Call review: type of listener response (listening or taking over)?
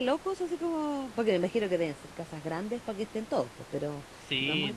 taking over